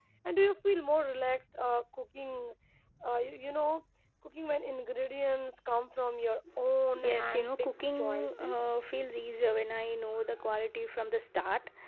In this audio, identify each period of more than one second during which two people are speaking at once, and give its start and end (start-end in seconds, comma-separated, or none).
7.0-8.6